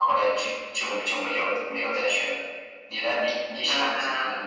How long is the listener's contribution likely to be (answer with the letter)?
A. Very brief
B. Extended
B